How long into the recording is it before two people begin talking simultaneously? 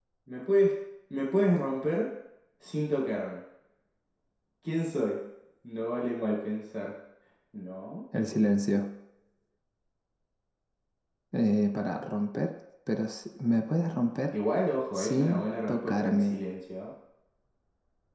15 s

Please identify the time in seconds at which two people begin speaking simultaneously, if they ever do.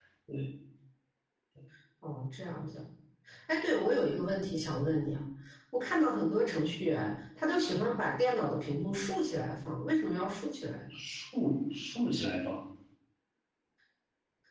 none

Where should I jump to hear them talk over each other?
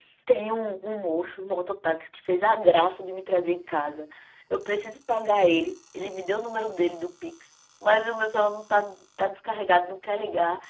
none

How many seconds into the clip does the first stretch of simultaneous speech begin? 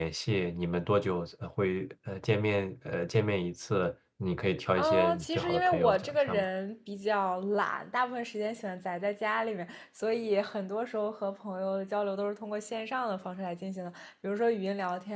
5 s

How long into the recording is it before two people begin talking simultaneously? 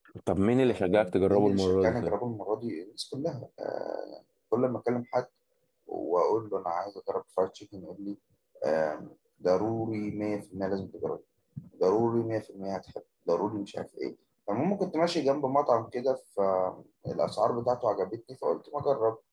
1 s

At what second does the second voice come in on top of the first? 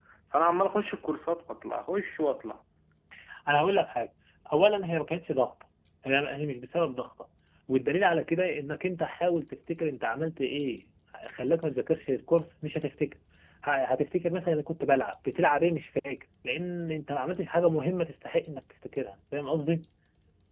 none

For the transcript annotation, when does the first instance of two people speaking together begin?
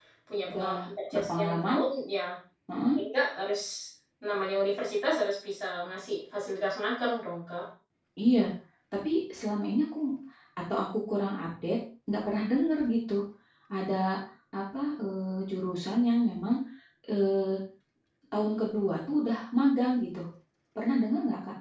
1 s

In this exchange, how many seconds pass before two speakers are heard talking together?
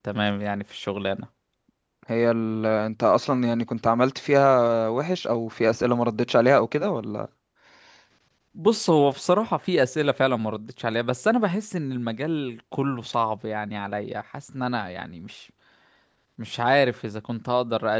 none

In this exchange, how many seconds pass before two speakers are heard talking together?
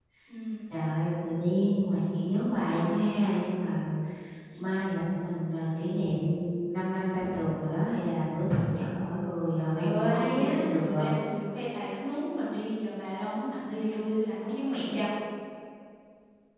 10 s

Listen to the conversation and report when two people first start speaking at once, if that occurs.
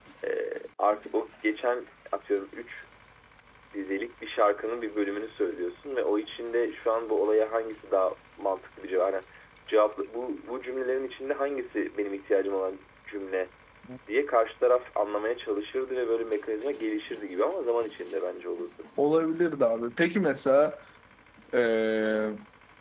none

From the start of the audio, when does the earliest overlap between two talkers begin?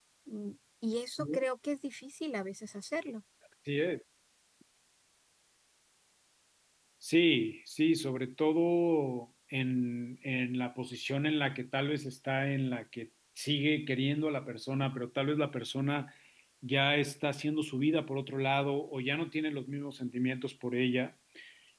none

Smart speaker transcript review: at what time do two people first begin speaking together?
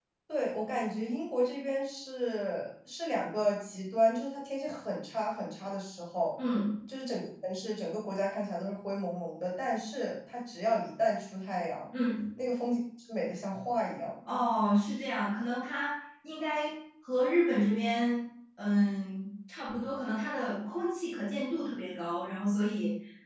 none

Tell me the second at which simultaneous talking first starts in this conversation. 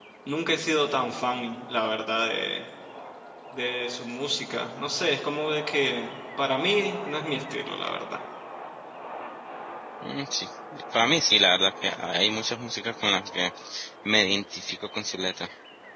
none

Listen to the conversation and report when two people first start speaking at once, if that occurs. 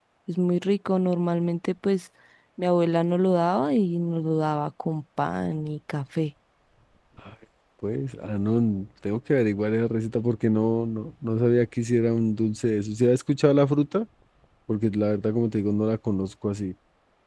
none

